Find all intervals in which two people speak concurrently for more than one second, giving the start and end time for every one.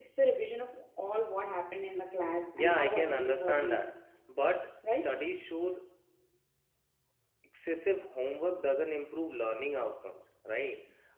2.6-3.9

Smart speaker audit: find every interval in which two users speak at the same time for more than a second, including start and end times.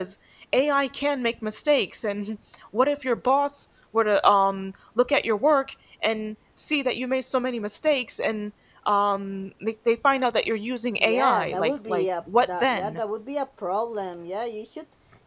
11.0-13.0

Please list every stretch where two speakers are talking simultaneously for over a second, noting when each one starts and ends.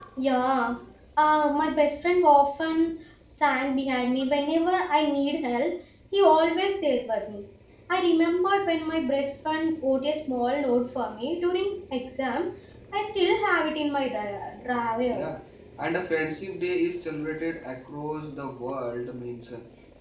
none

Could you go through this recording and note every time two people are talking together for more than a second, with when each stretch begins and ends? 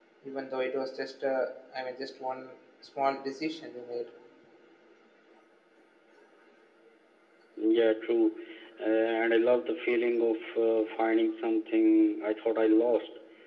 none

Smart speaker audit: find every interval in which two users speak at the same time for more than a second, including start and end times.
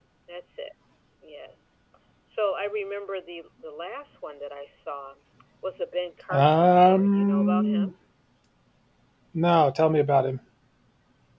6.3-7.9

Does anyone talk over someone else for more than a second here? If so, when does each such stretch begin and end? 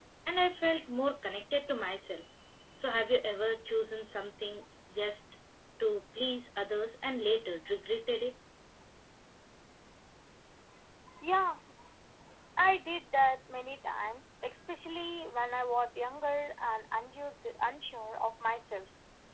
none

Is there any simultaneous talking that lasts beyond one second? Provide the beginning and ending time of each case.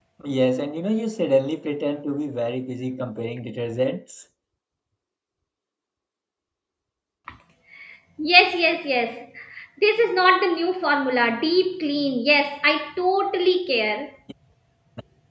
none

